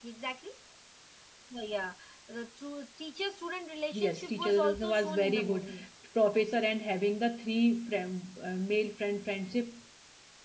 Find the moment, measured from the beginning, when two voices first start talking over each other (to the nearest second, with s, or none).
4 s